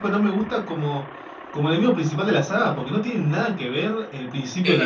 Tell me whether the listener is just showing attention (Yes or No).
No